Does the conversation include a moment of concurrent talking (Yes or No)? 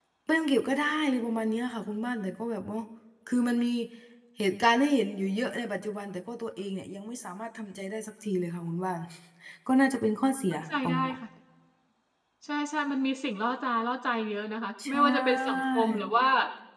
Yes